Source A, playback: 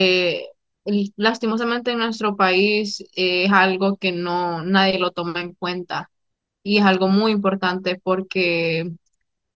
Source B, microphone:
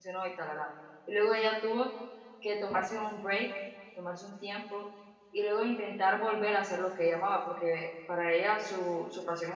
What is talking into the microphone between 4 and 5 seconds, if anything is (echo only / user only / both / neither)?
user only